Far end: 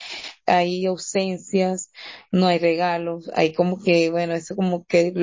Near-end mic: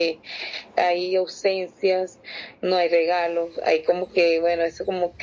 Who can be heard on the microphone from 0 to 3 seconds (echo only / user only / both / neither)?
echo only